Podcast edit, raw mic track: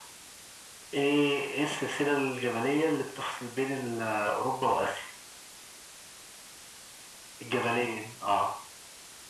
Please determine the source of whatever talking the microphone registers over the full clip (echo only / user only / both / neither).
echo only